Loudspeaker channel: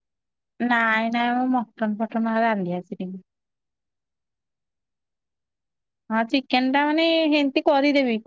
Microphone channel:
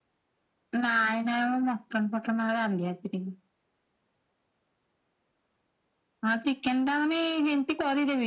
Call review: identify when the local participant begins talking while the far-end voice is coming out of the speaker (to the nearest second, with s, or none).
none